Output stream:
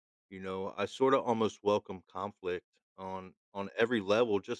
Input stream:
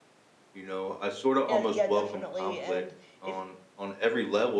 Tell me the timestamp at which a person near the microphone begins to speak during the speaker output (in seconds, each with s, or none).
1.4 s